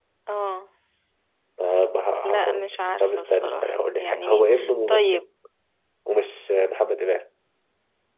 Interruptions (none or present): present